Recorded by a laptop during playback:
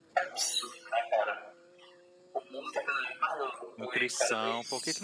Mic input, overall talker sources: both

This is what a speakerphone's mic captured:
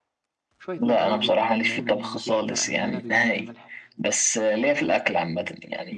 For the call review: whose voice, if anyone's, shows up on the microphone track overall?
both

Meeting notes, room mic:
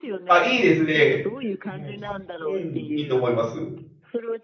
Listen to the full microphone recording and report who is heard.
both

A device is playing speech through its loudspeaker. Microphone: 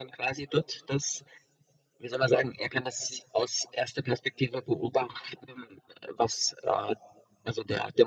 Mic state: echo only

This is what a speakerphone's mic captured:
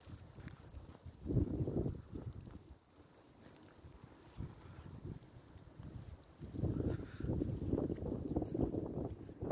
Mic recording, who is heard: neither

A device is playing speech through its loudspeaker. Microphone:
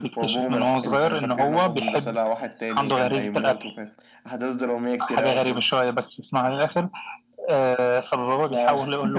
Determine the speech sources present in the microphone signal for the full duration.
echo only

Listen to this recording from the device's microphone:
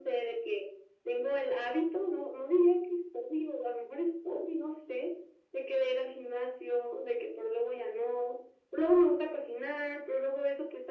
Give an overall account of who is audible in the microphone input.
echo only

